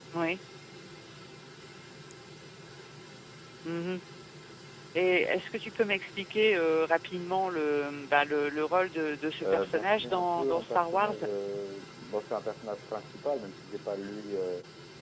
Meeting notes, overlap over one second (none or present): present